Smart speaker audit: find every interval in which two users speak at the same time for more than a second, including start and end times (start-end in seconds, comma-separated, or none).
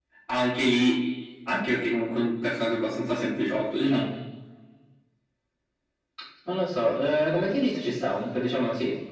none